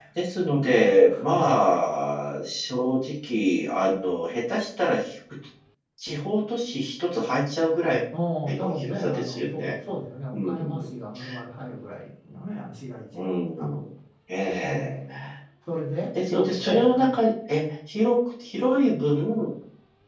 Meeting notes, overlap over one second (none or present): present